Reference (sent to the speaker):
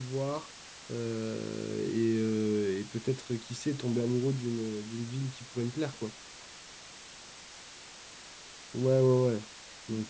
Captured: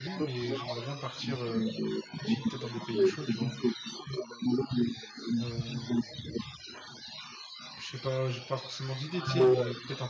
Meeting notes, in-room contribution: present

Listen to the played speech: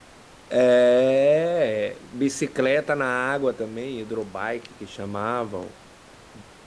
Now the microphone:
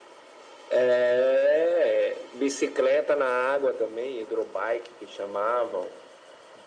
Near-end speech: none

